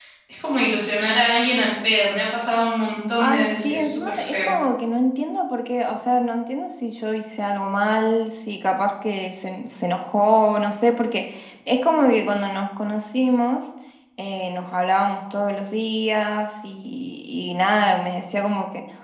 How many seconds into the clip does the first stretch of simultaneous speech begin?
3.2 s

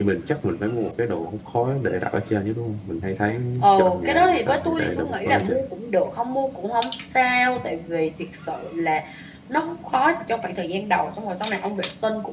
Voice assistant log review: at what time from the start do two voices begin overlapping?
3.8 s

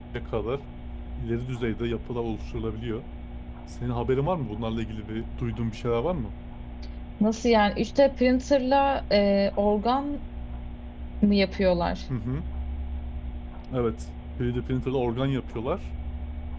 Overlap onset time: none

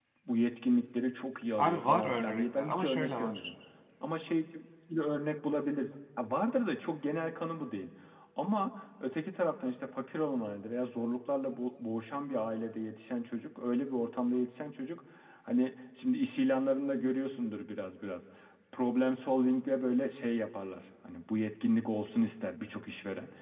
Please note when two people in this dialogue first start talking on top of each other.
1.6 s

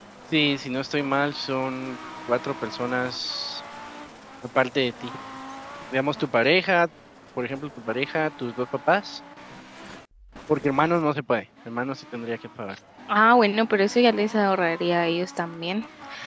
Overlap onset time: none

